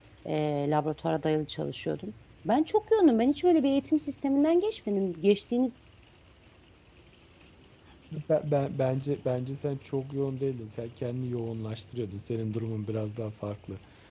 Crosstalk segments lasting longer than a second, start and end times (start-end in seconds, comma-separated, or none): none